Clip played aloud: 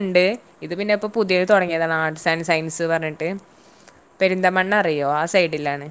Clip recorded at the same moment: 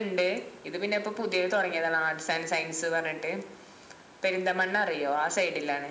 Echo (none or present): present